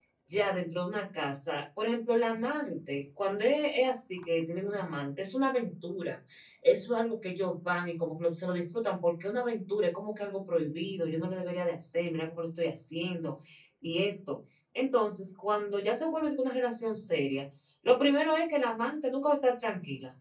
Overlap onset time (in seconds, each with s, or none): none